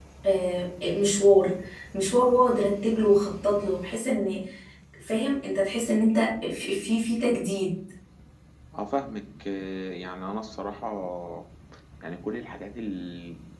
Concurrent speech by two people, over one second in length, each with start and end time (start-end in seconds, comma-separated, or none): none